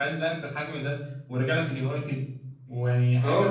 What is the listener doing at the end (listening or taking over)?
taking over